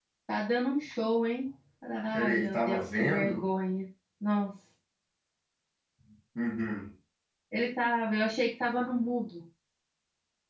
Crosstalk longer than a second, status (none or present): present